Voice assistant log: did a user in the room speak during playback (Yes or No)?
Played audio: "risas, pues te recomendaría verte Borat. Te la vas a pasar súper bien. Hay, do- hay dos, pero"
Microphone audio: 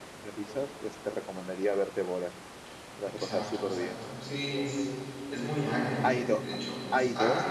Yes